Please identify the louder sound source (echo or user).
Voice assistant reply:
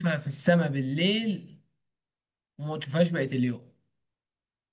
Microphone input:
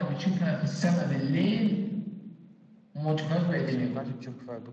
echo